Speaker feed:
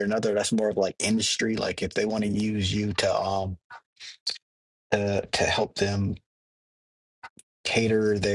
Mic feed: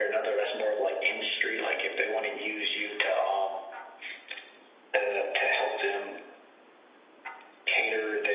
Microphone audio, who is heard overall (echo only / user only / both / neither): echo only